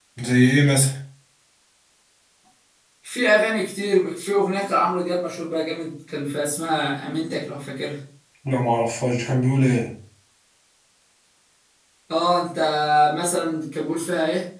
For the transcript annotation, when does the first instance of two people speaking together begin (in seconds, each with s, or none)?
none